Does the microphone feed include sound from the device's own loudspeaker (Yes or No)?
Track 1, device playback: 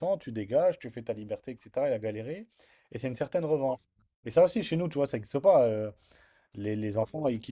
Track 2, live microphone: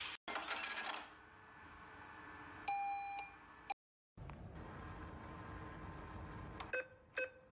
No